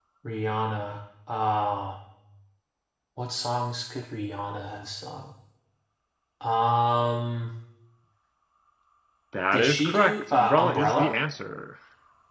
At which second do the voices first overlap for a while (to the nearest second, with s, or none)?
10 s